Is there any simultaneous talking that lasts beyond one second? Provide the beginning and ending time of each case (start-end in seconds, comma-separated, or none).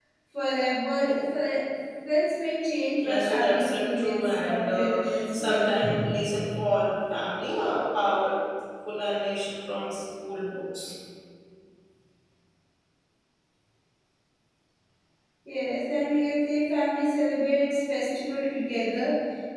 3.0-5.9